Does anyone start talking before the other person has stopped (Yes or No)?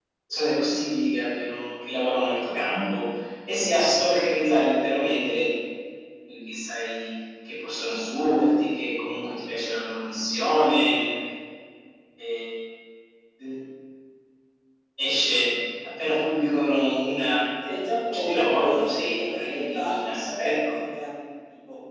Yes